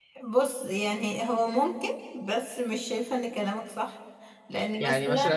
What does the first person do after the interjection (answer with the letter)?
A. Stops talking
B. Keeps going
A